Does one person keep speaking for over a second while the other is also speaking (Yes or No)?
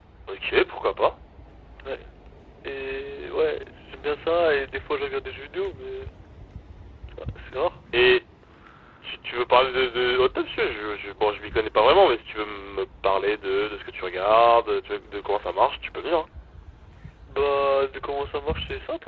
No